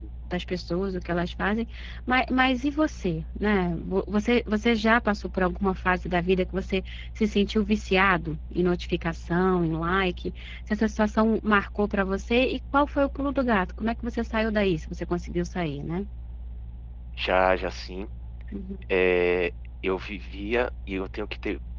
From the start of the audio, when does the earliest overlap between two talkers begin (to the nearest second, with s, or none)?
none